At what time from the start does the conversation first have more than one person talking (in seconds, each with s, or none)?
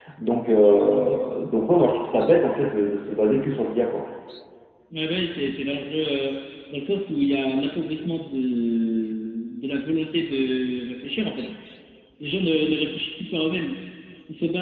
none